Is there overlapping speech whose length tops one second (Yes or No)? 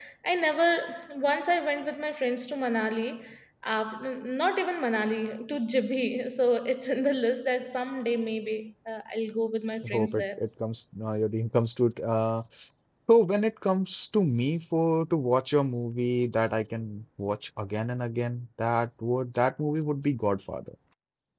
No